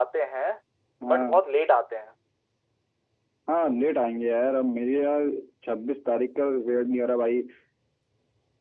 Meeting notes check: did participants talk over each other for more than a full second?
No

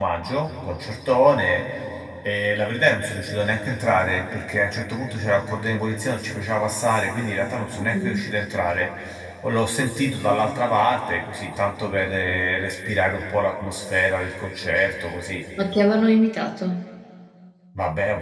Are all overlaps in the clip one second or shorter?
Yes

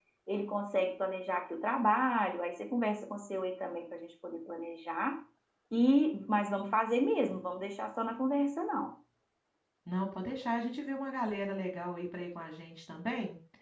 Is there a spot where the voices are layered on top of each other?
No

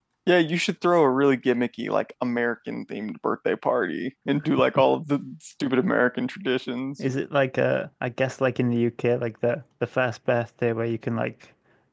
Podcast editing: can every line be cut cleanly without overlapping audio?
Yes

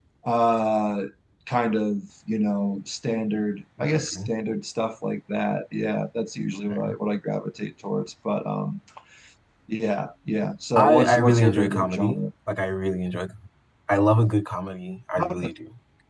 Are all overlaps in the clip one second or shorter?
No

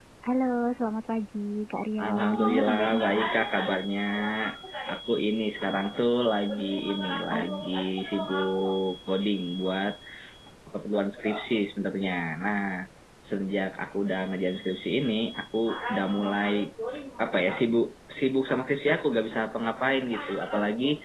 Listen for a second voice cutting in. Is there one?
Yes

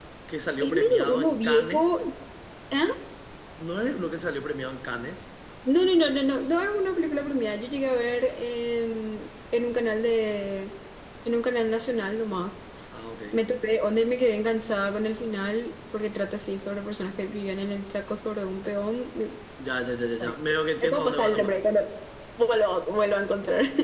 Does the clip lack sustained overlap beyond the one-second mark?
No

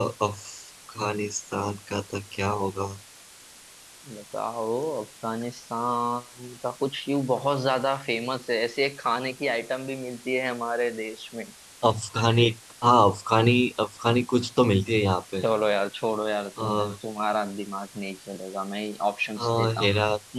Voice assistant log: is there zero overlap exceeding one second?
Yes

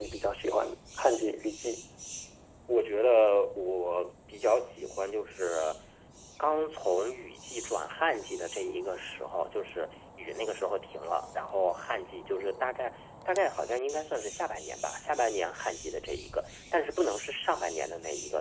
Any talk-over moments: No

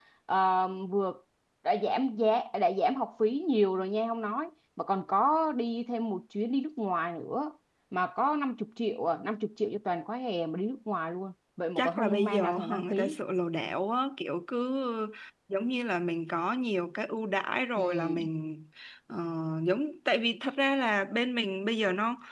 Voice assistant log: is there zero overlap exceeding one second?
No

